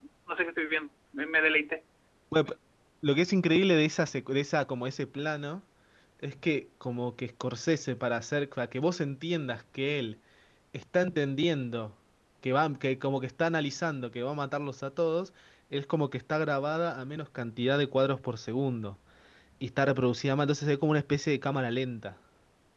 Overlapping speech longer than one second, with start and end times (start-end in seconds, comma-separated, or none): none